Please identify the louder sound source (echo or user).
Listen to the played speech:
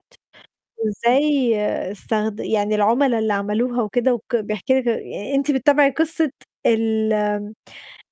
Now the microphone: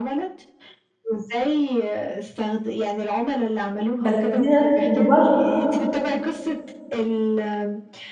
user